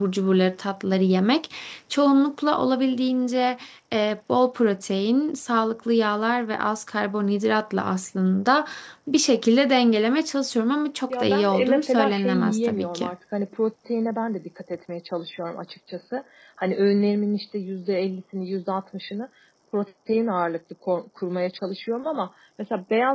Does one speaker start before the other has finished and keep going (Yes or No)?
Yes